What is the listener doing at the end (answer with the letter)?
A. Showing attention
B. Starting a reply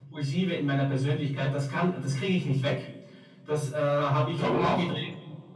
A